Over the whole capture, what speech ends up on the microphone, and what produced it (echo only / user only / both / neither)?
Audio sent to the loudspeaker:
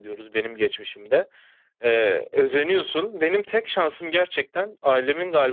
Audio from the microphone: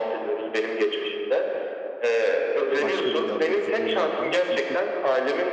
both